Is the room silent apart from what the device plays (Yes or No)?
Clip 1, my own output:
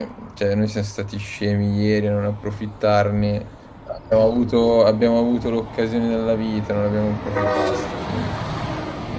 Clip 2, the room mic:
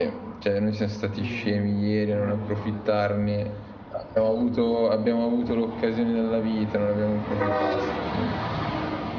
No